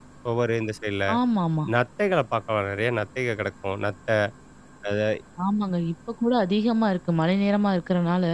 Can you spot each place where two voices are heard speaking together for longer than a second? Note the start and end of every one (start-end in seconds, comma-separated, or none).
none